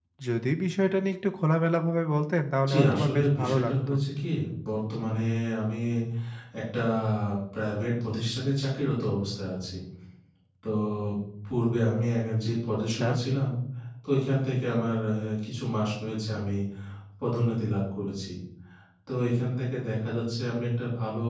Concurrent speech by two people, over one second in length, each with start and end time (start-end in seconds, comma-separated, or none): 2.7-3.9